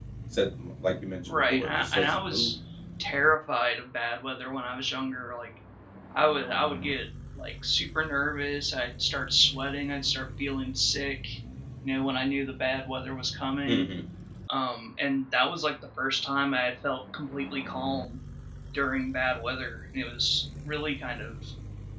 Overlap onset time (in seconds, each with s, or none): 1.3 s